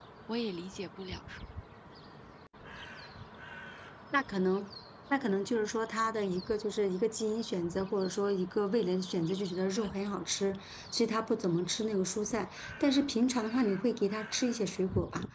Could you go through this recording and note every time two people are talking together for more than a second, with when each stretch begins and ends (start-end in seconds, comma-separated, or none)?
none